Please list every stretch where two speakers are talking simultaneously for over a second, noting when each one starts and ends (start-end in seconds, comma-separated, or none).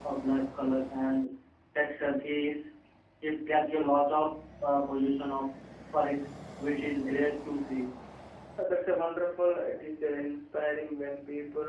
none